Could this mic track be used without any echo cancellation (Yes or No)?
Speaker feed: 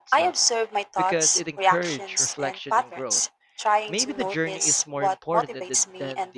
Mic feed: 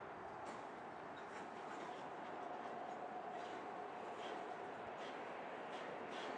Yes